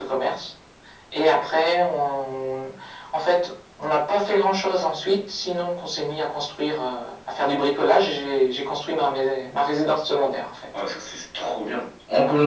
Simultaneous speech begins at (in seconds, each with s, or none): none